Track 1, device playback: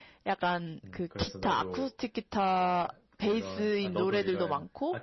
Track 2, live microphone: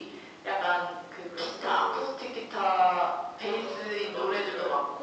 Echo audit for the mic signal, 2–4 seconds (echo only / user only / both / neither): echo only